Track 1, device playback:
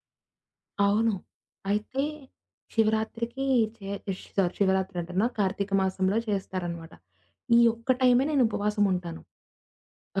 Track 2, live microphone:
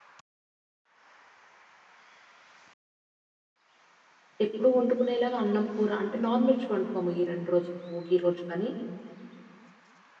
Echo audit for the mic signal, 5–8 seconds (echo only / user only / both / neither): user only